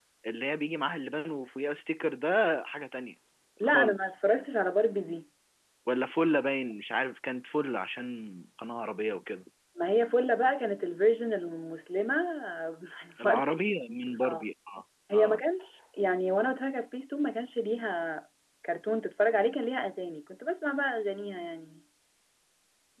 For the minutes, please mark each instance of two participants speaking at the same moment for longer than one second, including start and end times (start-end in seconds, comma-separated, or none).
none